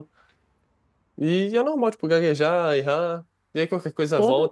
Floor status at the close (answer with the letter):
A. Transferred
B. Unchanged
B